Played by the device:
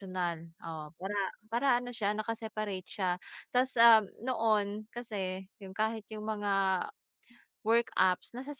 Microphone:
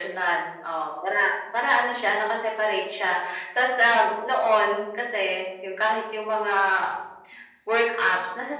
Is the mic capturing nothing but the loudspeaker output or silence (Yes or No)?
Yes